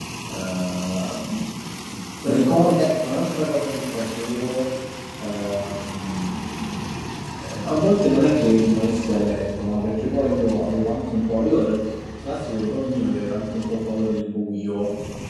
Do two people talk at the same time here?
No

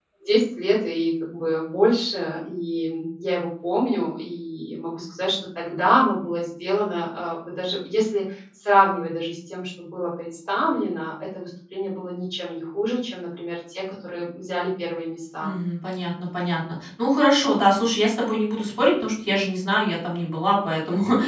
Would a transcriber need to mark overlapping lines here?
No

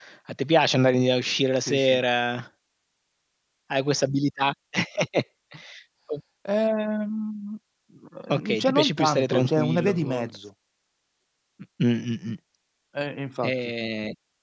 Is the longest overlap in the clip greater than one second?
Yes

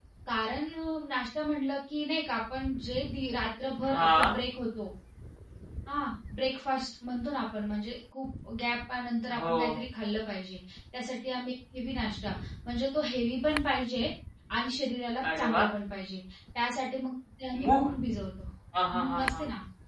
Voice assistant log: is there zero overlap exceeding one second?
Yes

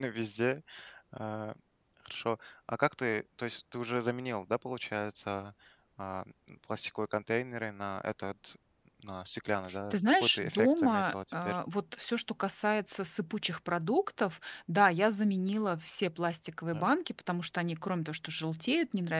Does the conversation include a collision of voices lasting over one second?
Yes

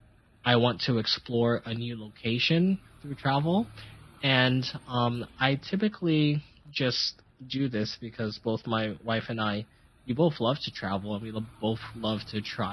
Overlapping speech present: No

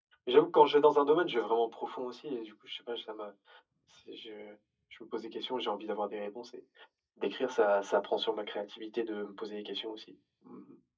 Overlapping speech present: No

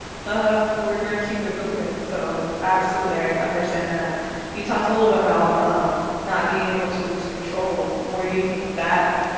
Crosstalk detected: No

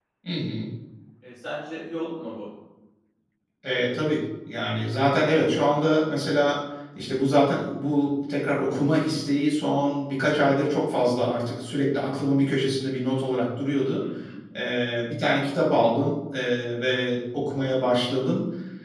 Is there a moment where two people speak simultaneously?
No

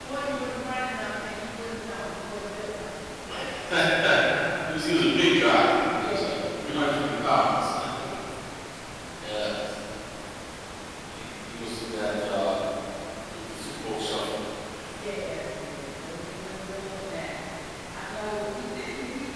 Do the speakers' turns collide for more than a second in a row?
Yes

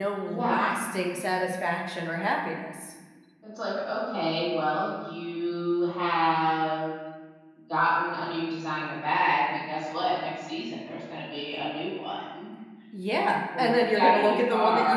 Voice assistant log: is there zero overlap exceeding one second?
No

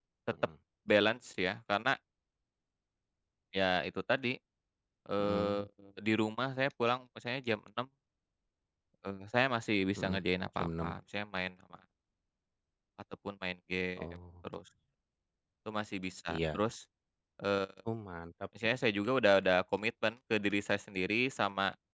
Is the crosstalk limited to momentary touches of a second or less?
Yes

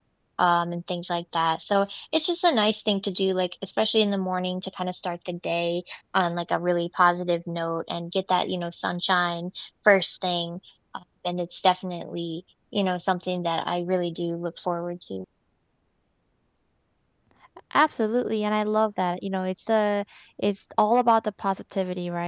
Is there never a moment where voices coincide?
Yes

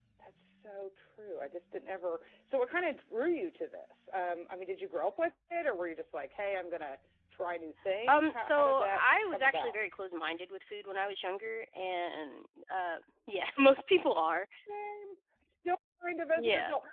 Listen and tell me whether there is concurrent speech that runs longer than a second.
Yes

